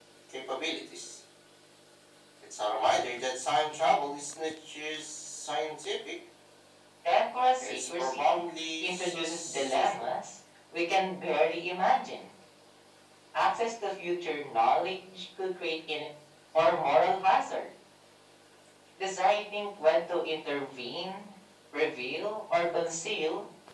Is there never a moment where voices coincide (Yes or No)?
No